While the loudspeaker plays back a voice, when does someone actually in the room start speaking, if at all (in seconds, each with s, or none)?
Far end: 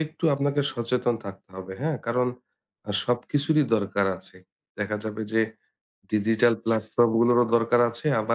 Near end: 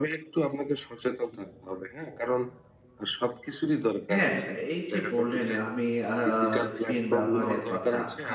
4.1 s